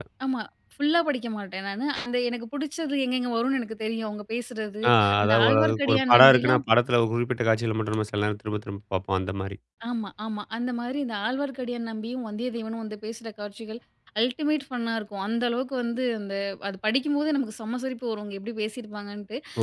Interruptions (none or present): present